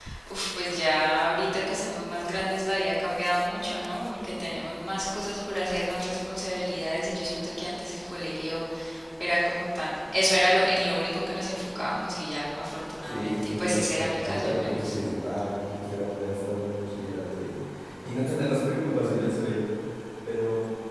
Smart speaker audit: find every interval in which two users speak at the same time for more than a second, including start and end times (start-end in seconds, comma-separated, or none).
13.0-14.9